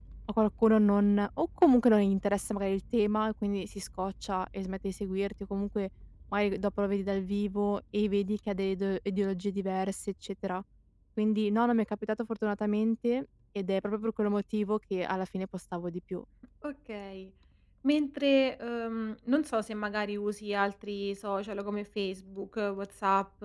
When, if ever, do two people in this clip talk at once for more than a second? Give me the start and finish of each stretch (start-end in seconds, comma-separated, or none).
none